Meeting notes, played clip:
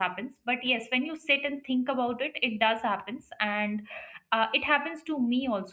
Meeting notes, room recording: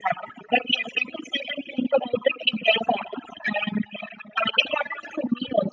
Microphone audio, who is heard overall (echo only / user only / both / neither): echo only